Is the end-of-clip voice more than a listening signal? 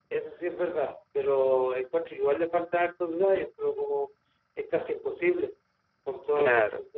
No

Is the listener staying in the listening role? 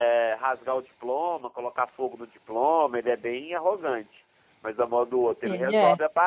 Yes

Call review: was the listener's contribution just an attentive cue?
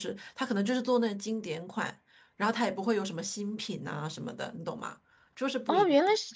No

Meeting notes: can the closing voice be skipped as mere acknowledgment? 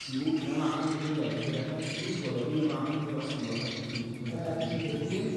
No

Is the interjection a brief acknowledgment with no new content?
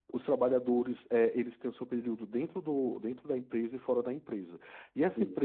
Yes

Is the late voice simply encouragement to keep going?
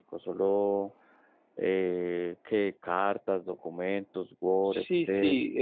No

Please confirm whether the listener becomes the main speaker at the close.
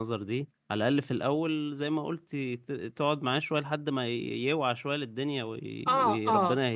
Yes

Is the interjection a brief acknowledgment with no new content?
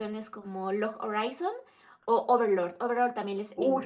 No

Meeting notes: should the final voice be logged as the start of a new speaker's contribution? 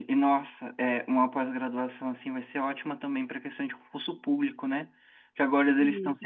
No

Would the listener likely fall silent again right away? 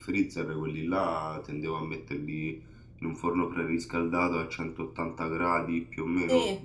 No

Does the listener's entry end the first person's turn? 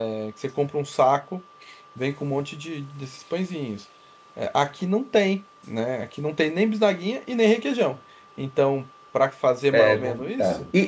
Yes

